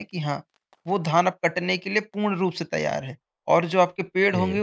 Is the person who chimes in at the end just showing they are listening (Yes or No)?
Yes